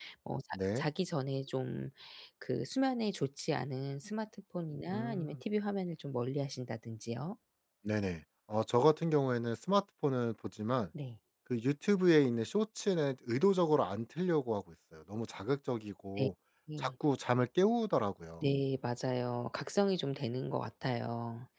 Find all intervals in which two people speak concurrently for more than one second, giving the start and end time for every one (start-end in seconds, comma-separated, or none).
none